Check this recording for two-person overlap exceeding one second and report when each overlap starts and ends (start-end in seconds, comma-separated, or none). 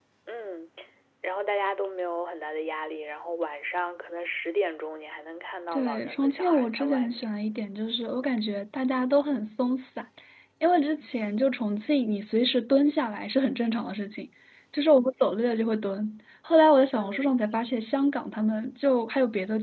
5.7-7.2